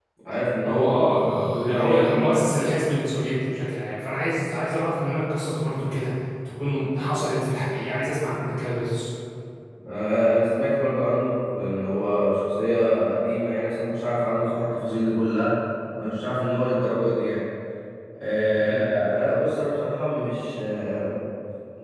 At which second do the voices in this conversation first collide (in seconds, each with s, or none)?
0.7 s